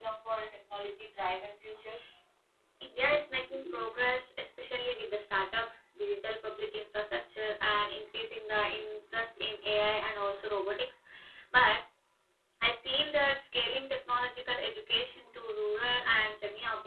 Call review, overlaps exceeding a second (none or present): none